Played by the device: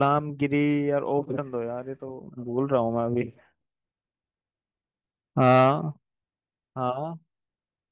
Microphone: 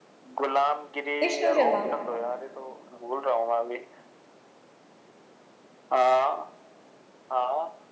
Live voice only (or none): विष्णु शर्मा